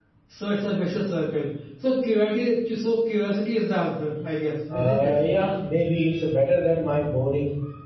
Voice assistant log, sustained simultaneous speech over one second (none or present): none